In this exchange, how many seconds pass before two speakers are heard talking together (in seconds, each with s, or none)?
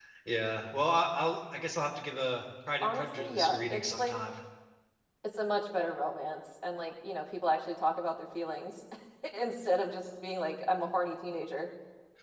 2.8 s